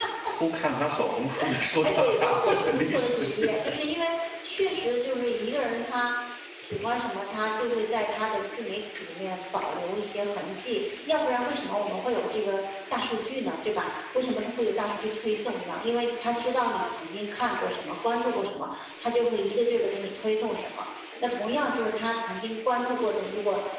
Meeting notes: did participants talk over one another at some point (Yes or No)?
Yes